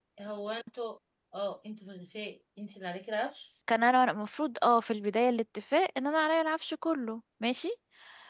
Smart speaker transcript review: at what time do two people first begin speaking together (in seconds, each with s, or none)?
none